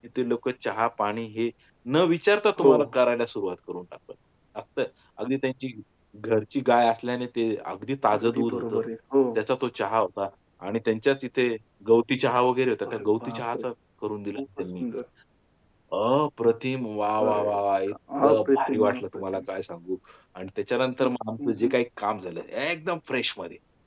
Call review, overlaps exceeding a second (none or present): present